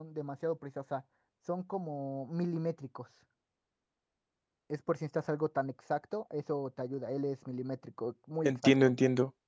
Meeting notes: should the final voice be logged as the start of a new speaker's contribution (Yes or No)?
Yes